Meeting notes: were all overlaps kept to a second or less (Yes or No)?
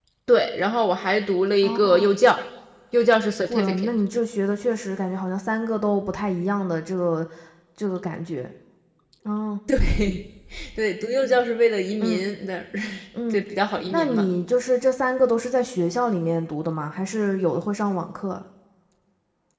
Yes